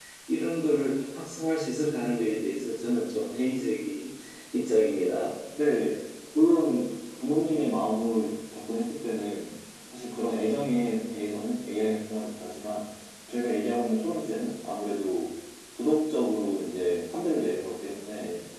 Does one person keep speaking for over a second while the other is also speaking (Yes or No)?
No